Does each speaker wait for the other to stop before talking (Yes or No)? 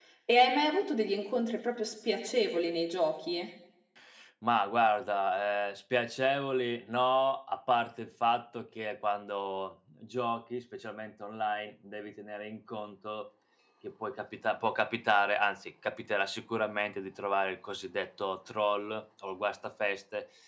Yes